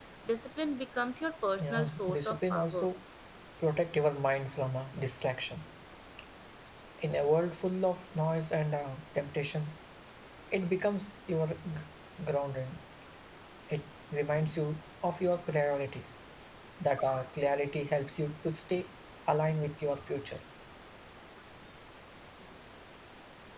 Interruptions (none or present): present